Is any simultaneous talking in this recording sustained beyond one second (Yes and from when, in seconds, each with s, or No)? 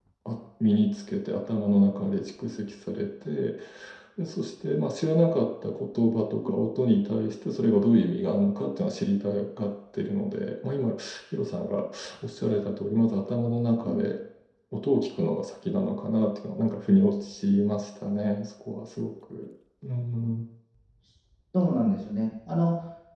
No